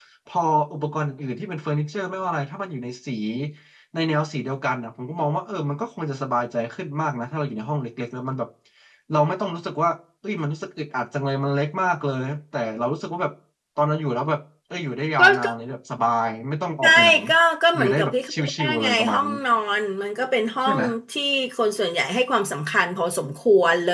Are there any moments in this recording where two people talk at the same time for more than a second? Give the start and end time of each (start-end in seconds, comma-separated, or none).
17.8-19.3